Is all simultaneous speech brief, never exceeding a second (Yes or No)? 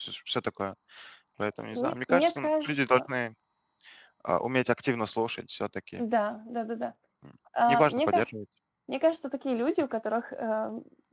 No